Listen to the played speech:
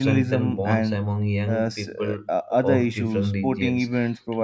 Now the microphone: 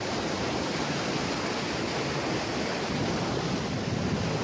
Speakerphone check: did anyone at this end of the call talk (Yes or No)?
No